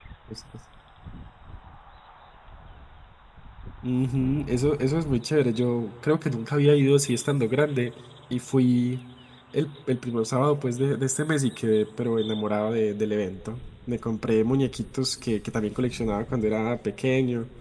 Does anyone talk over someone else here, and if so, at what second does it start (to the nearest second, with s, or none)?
none